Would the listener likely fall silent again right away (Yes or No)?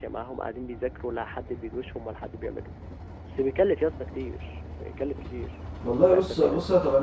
No